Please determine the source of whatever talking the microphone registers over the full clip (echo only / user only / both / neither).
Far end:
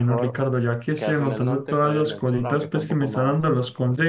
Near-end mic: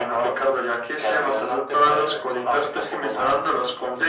echo only